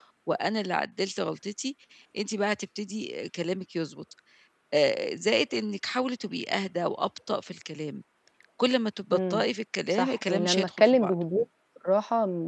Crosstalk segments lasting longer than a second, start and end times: 9.9-11.1

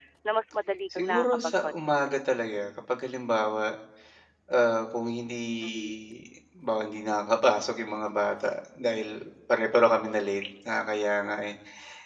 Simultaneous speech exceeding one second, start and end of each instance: 1.0-2.2

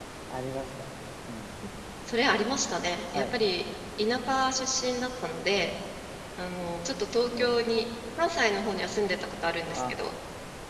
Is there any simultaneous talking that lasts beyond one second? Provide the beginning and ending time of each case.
none

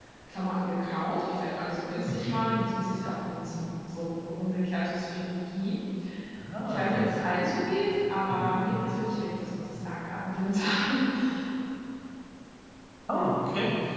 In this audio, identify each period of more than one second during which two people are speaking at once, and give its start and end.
none

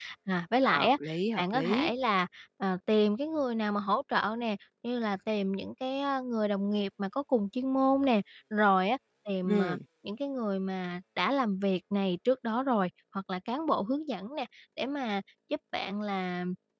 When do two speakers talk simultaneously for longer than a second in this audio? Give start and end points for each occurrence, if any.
none

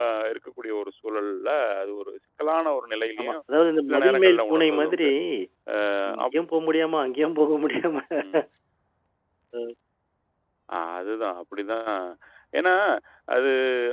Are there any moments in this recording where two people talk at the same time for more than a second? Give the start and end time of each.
3.9-5.1

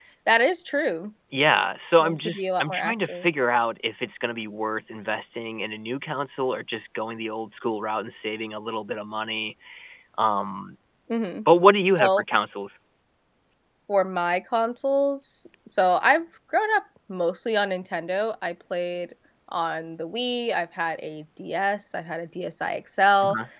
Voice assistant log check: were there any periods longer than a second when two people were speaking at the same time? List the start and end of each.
2.0-3.3

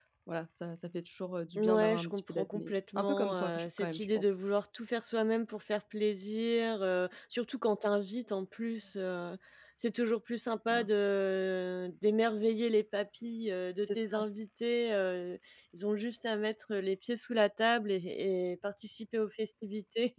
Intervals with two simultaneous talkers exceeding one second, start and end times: 1.6-4.3

